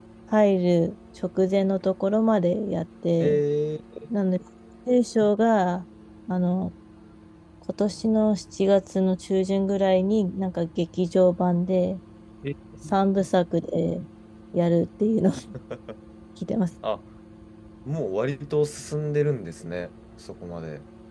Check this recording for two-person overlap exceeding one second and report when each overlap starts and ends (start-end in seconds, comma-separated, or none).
none